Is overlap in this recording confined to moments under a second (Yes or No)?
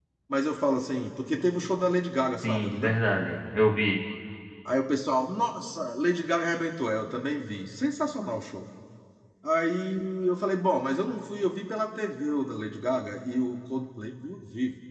Yes